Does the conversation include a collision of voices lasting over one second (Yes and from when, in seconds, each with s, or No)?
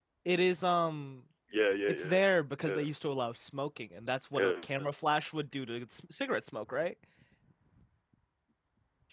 No